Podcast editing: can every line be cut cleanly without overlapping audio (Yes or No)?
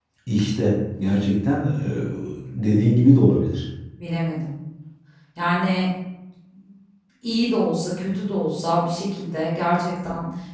Yes